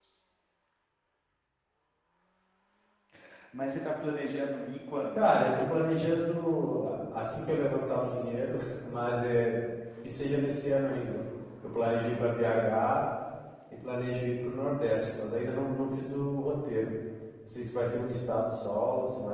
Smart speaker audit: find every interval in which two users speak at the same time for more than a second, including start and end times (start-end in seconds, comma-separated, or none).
none